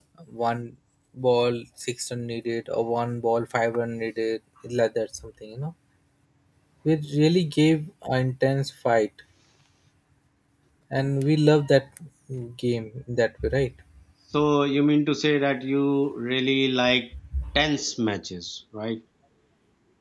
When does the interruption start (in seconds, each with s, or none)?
none